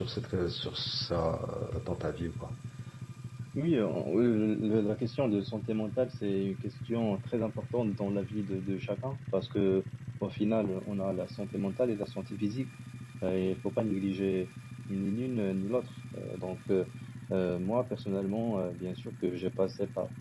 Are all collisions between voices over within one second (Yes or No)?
Yes